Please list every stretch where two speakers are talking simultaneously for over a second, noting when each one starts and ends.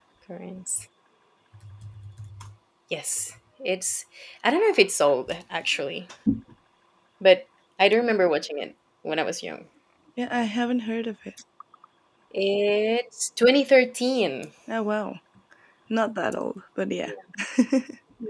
none

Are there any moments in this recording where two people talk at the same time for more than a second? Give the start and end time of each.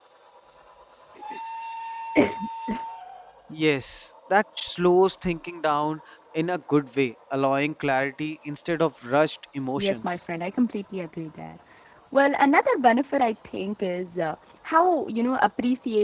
none

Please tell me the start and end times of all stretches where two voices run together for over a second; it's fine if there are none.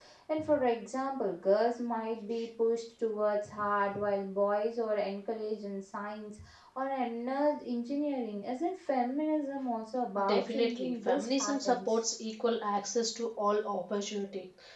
10.2-12.0

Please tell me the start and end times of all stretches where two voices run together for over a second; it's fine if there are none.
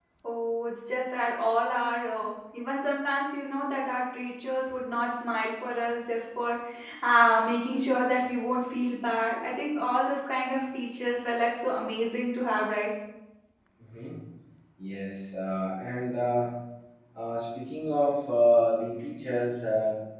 none

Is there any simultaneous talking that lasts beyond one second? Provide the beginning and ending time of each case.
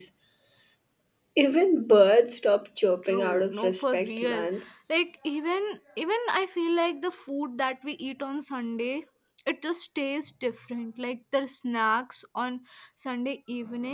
3.0-4.5

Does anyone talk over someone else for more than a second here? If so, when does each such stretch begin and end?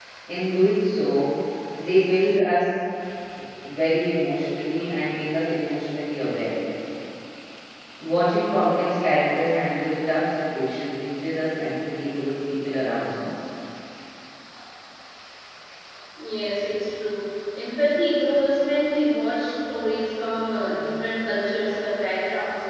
none

